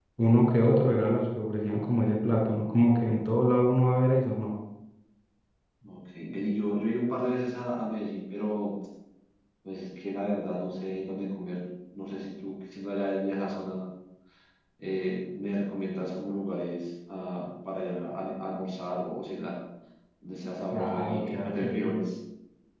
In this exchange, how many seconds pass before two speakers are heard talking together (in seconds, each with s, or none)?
20.7 s